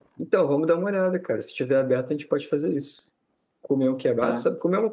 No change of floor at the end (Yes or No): Yes